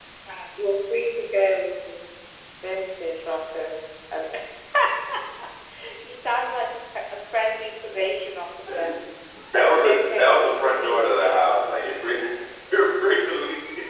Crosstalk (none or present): present